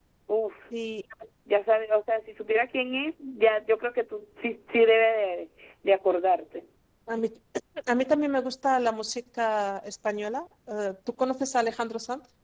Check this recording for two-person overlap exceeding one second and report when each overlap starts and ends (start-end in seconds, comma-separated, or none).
none